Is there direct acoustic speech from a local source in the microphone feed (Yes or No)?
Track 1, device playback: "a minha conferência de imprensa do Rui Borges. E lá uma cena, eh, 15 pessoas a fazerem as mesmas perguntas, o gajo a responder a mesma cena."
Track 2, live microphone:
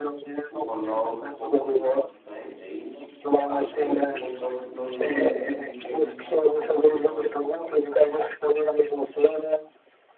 Yes